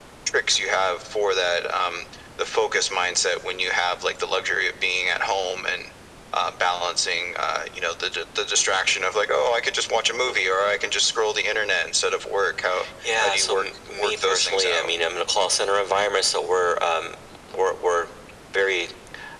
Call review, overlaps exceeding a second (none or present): present